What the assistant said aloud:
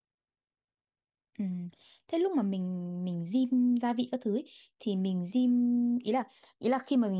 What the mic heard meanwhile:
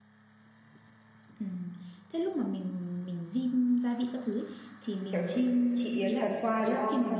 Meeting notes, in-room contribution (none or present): present